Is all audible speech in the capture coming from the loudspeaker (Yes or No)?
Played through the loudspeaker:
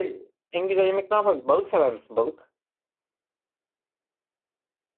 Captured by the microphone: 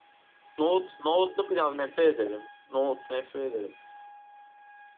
No